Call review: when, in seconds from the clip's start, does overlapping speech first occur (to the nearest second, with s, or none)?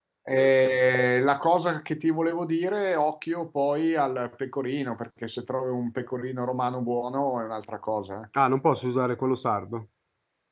none